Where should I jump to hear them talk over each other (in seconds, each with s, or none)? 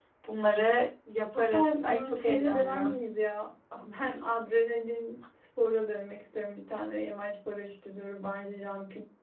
1.3 s